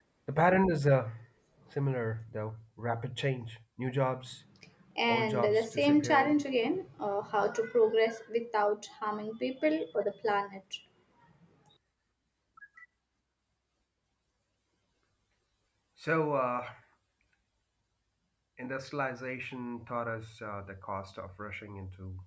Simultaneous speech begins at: 5.1 s

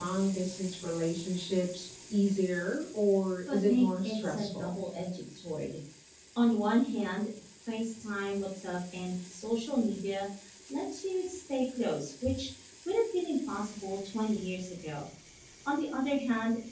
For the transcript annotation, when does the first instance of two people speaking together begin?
3.5 s

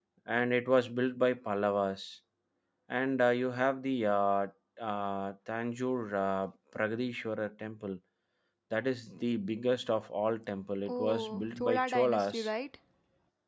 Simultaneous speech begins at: 10.9 s

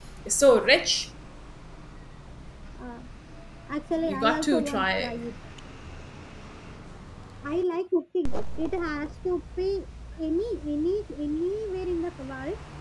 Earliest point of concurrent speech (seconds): 3.9 s

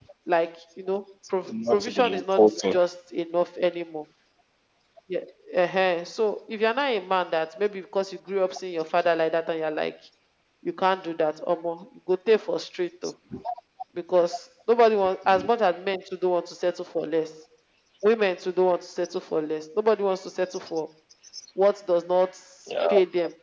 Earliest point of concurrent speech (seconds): 1.4 s

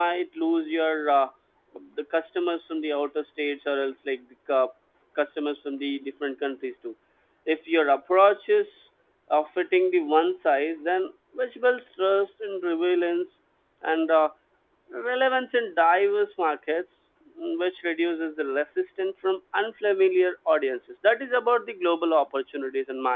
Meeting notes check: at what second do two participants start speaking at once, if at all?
none

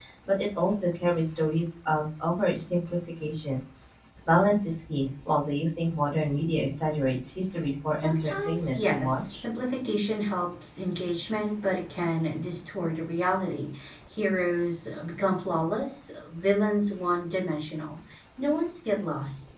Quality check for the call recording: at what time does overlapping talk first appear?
8.0 s

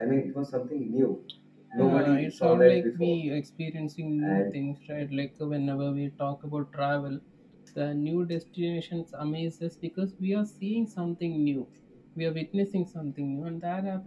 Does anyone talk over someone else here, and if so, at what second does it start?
1.8 s

